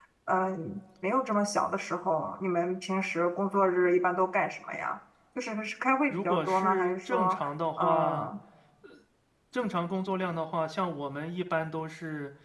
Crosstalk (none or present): present